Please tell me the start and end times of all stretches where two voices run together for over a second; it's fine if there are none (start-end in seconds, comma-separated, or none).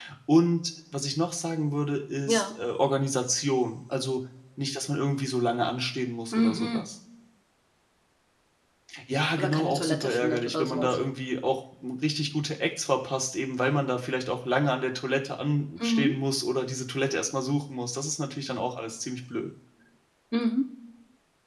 9.4-10.9